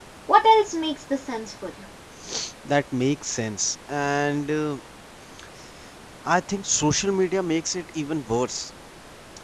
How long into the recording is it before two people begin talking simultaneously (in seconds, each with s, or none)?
none